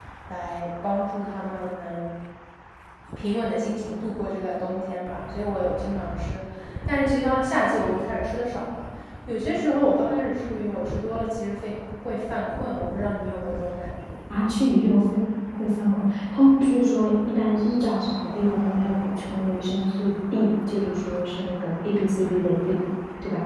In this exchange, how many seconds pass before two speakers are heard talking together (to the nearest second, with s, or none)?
none